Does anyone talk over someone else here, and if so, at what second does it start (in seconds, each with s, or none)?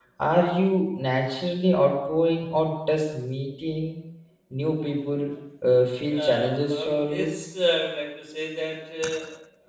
6.1 s